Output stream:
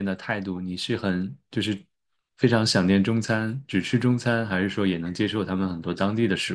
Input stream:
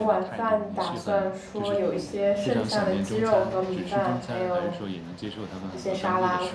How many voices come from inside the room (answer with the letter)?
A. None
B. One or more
B